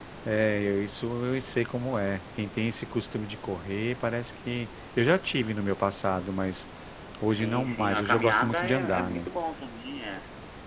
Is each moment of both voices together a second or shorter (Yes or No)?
No